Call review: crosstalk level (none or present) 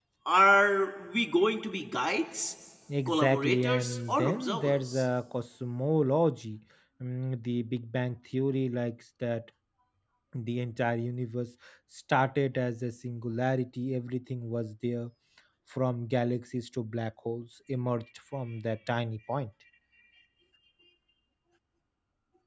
present